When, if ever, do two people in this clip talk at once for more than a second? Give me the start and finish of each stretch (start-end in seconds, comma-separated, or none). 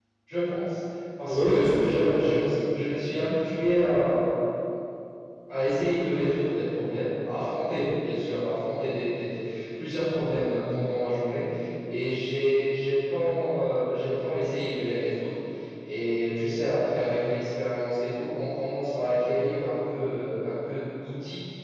1.2-2.5